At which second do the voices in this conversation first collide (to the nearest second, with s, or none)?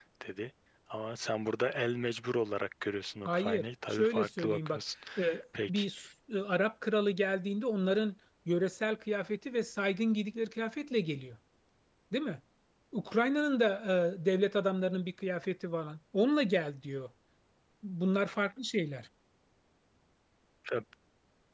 3 s